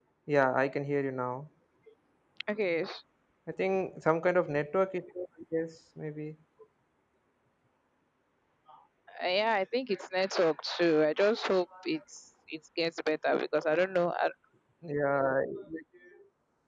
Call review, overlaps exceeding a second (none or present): none